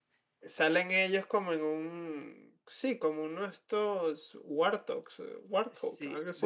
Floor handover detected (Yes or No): Yes